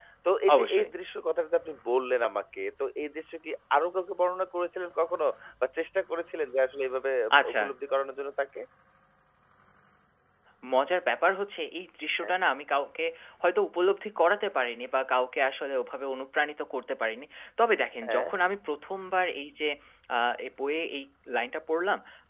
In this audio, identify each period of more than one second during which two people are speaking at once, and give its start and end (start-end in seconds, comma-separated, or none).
none